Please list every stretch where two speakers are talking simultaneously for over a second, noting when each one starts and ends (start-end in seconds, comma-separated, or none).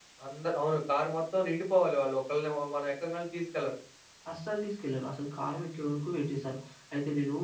none